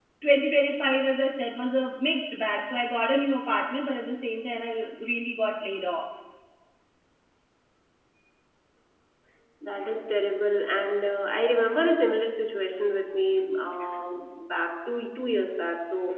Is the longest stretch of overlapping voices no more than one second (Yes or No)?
Yes